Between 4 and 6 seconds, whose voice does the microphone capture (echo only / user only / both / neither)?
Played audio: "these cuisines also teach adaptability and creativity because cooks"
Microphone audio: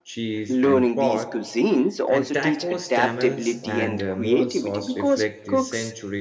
both